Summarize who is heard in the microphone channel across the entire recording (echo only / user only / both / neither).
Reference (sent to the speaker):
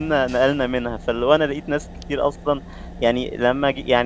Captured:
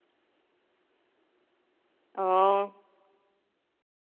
user only